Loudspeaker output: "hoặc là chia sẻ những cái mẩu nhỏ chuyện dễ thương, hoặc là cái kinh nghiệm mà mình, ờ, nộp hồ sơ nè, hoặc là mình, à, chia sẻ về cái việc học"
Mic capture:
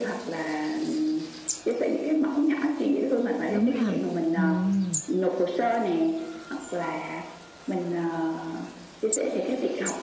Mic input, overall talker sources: both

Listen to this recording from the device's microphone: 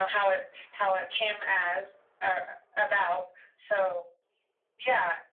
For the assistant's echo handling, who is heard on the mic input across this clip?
echo only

